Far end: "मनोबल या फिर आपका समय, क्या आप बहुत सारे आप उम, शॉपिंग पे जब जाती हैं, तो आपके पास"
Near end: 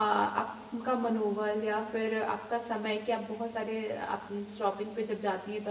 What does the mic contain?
echo only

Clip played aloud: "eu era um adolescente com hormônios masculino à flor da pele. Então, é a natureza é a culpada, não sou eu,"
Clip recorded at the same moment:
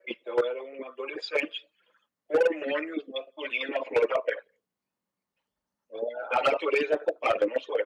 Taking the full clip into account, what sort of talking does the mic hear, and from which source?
echo only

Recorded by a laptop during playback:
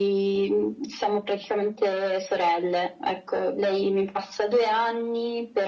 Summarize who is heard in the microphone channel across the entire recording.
echo only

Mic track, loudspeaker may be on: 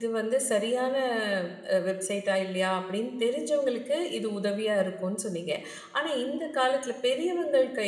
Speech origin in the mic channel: user only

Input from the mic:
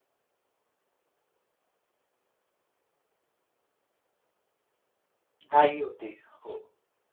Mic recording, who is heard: user only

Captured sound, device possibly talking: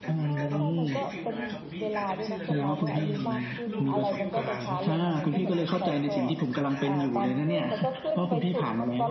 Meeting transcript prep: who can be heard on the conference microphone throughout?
both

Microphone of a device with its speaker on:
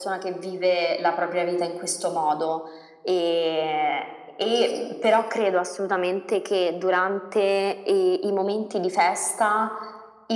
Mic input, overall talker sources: echo only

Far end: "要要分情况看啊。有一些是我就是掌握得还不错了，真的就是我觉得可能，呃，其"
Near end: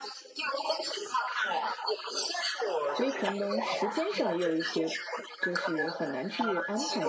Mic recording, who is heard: both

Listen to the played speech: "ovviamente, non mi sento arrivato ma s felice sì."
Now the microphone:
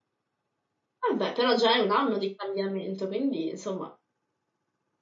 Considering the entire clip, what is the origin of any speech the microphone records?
user only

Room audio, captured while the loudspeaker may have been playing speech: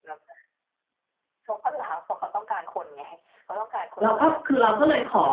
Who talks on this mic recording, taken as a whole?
both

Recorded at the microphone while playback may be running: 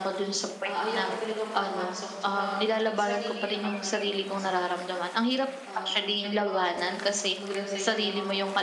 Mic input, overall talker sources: both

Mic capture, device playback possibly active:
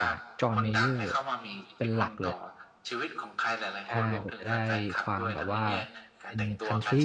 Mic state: both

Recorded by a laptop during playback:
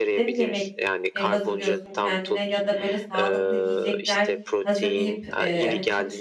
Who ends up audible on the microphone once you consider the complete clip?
both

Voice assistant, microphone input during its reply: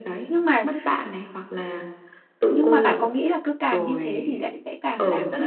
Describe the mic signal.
both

